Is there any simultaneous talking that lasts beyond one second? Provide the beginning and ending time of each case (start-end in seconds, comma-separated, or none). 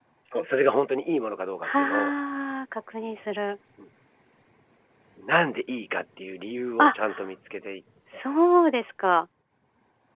none